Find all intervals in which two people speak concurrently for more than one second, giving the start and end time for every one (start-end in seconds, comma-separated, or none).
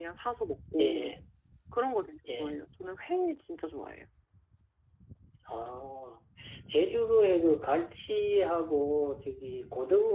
none